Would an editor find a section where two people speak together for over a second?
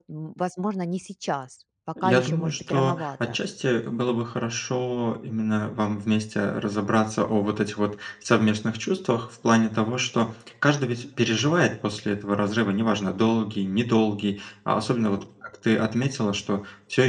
Yes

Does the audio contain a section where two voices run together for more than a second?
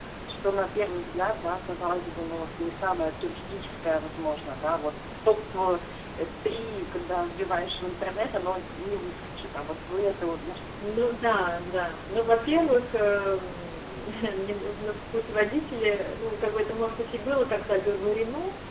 No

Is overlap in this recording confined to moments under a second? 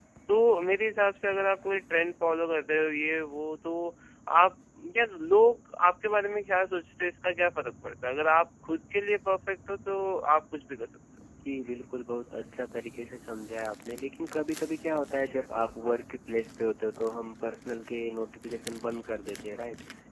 Yes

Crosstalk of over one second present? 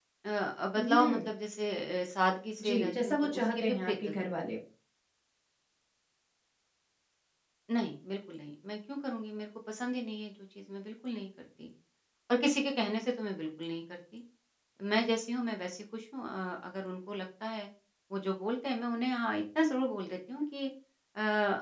Yes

